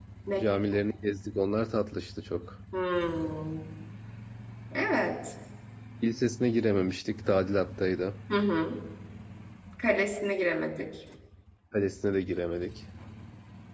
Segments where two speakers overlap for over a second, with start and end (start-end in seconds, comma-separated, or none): none